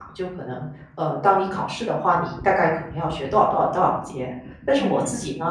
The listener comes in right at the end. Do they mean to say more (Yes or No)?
No